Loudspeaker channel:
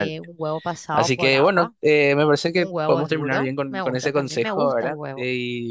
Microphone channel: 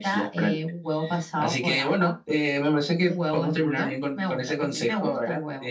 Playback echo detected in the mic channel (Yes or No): Yes